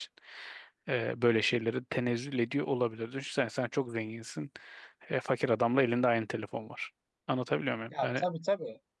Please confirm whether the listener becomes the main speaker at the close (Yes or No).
Yes